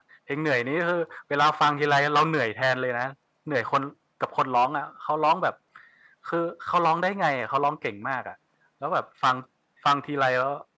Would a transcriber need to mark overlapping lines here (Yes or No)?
No